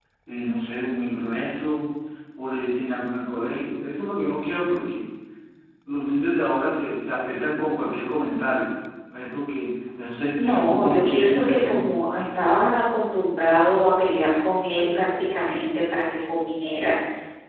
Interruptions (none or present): present